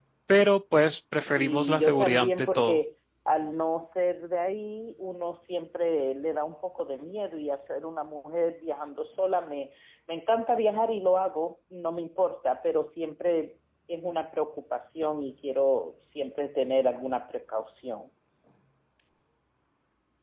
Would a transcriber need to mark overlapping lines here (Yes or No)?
Yes